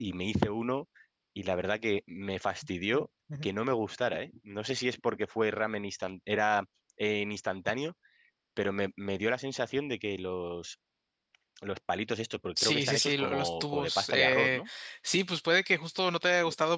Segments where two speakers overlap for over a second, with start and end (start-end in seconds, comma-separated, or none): 12.6-14.6